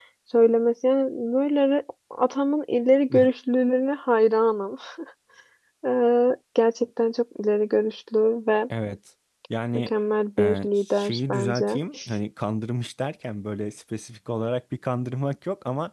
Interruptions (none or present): present